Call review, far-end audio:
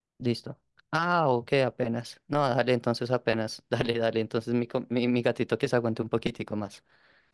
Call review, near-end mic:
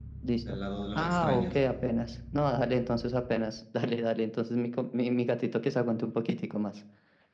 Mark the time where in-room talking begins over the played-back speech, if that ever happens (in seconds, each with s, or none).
0.4 s